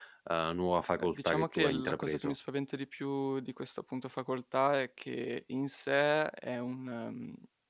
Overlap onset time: 1.0 s

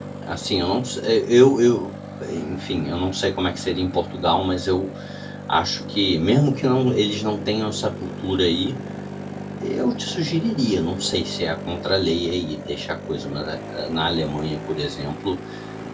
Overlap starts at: none

